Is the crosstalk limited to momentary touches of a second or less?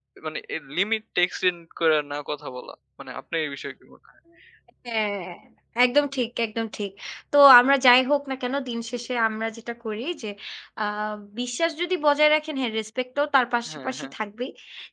Yes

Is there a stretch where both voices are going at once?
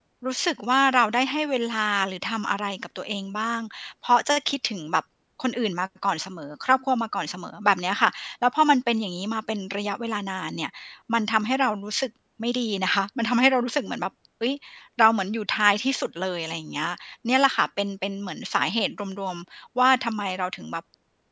No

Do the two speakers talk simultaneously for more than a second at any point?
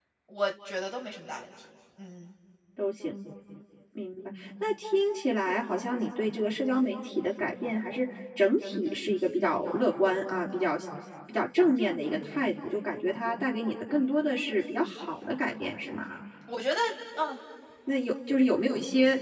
No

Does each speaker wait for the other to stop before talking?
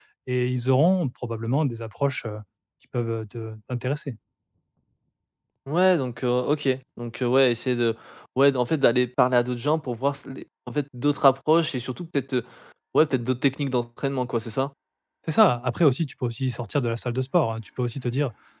Yes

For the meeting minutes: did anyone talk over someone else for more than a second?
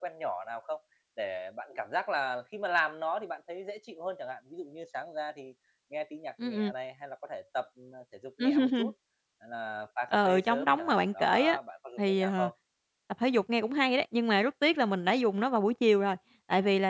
Yes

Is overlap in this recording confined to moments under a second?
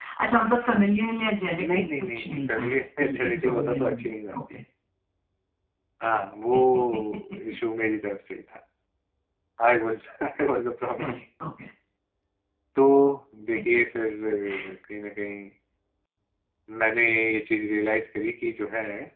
No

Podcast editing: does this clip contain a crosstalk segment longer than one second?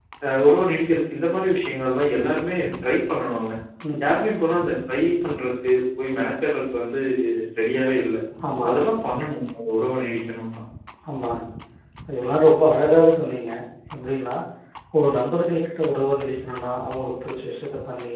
No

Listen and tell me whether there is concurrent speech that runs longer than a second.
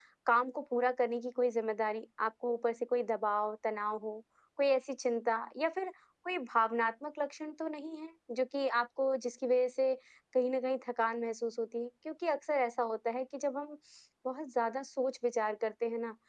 No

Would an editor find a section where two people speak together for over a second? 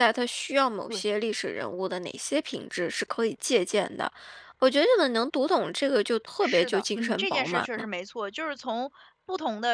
Yes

